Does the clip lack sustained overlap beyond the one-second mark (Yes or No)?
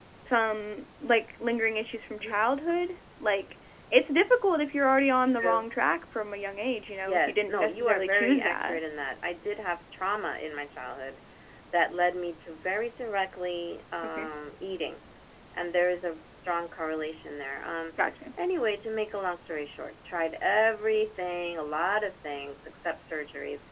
No